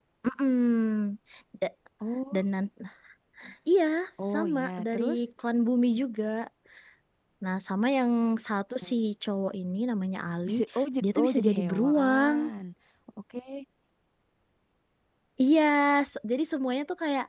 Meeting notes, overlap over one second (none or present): present